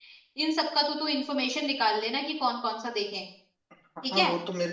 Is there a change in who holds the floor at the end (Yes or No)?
Yes